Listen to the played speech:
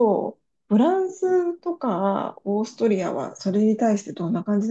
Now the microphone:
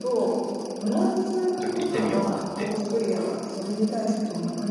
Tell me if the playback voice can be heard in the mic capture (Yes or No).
Yes